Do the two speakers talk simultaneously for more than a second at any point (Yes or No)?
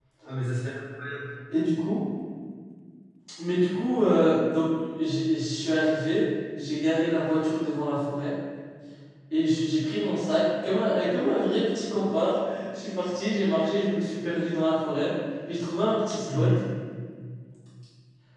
No